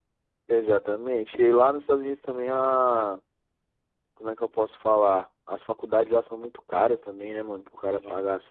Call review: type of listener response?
listening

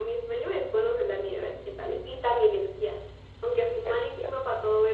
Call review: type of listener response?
listening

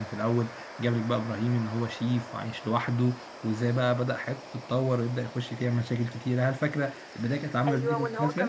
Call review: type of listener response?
taking over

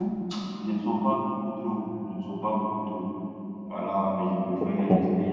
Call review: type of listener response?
listening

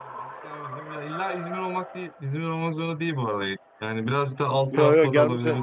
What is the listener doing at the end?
taking over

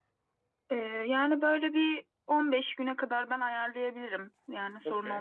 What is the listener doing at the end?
taking over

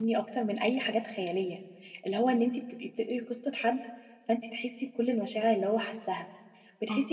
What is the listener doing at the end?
listening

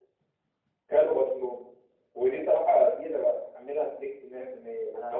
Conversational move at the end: listening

